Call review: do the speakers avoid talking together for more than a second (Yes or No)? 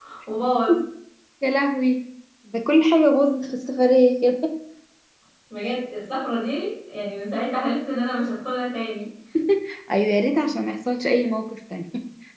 Yes